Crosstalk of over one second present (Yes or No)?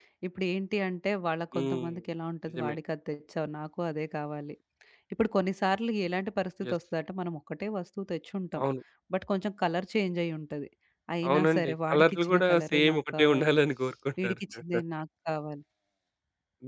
Yes